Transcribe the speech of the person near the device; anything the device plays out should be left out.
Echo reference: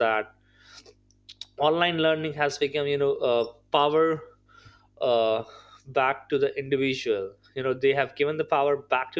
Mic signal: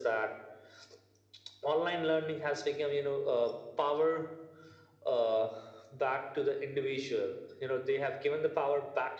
none

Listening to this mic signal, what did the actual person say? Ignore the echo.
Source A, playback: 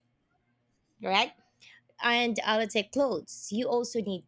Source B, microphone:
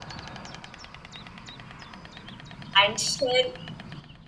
and share

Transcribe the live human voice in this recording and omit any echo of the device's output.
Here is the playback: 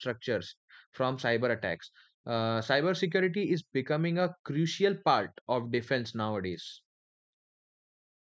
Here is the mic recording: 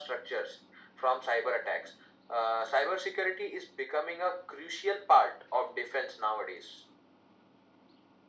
none

